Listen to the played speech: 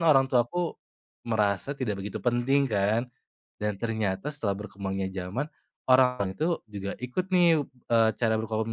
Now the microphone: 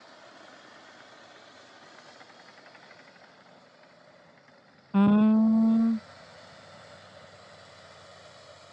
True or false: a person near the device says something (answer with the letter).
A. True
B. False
A